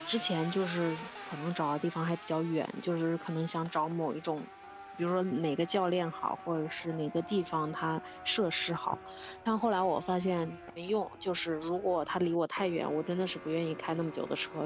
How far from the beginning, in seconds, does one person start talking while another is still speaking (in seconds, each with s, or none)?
none